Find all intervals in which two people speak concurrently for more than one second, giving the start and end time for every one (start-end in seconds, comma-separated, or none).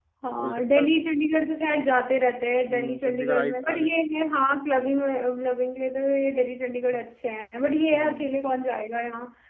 2.7-3.9